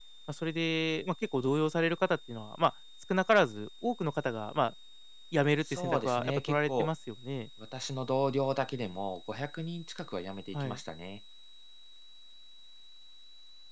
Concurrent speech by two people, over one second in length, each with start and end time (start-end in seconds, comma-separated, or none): 5.6-6.9